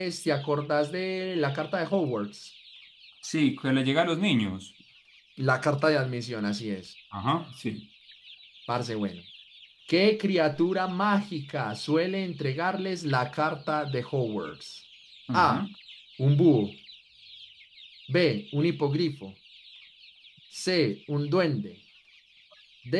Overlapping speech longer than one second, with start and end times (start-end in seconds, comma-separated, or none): none